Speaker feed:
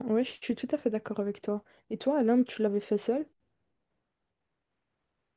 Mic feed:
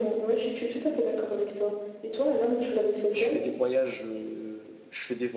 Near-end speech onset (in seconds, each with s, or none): 3.1 s